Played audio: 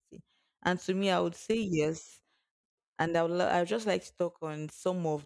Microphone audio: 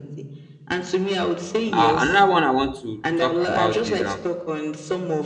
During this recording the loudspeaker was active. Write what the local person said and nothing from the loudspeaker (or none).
uh, another one i want to talk about is um